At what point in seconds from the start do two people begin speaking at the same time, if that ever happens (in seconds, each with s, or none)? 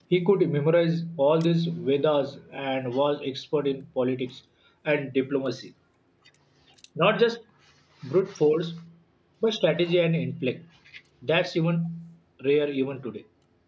none